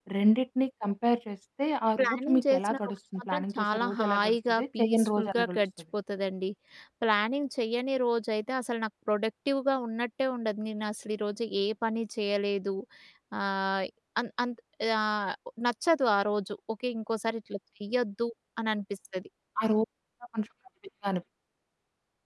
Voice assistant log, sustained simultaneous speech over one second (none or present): present